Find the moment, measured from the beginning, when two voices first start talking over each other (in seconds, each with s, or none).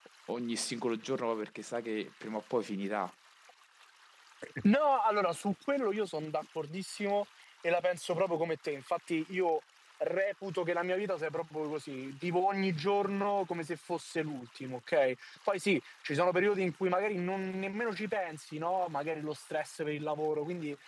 none